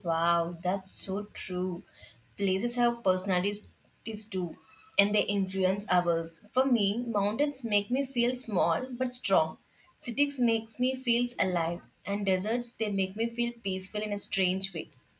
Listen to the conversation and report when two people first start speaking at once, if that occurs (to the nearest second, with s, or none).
none